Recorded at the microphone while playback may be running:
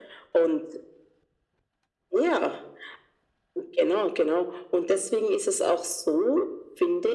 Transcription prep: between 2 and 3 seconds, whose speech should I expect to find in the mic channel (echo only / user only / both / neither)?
echo only